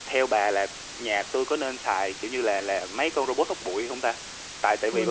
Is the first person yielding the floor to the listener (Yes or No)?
No